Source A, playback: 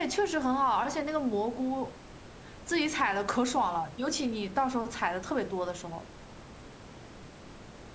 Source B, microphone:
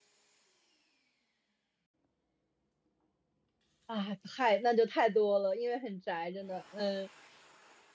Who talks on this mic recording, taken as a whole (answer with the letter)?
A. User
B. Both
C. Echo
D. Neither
A